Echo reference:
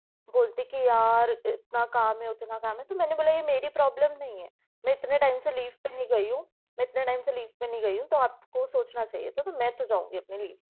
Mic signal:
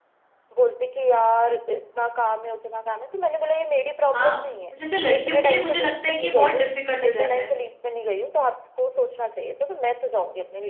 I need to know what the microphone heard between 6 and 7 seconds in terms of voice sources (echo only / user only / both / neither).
both